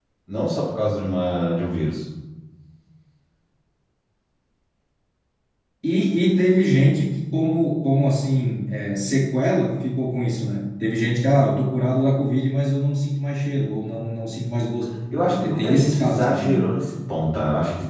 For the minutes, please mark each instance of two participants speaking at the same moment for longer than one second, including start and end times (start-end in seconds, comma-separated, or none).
15.3-16.6